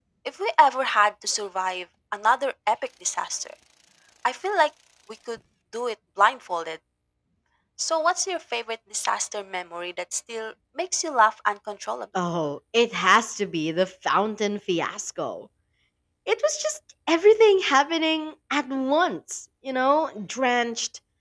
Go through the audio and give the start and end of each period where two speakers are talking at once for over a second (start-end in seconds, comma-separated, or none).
none